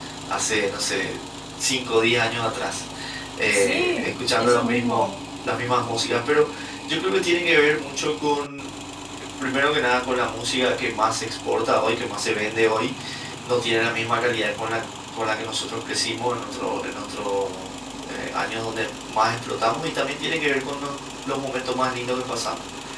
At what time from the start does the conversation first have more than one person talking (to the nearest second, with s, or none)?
4 s